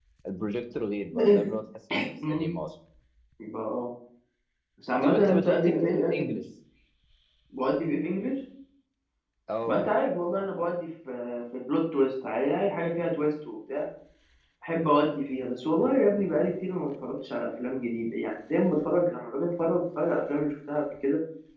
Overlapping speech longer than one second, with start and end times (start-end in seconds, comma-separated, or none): 5.0-6.3